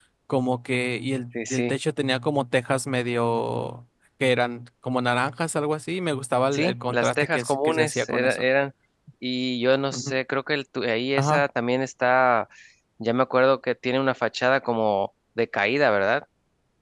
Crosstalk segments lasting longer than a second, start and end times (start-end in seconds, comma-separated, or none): 6.5-8.4